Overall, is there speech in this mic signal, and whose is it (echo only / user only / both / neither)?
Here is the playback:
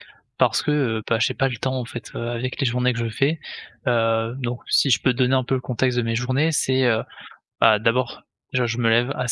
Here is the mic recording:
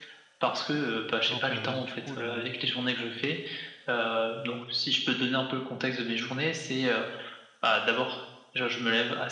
both